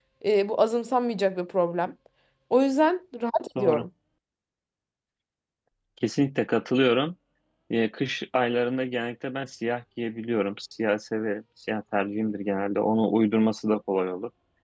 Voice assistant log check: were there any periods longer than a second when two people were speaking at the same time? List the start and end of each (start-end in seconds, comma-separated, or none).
none